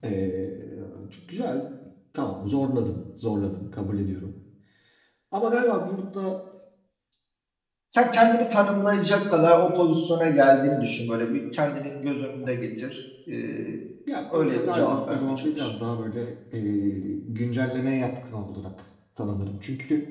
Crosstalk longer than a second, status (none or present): present